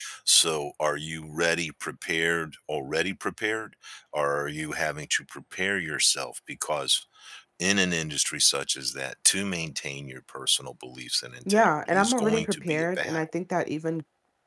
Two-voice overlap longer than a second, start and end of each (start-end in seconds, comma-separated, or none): 11.5-13.2